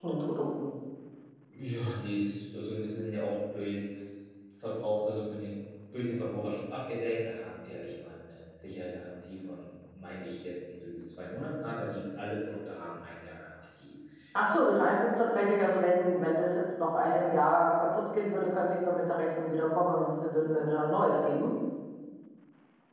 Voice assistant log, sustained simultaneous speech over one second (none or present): none